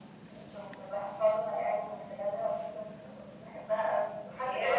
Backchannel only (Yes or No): Yes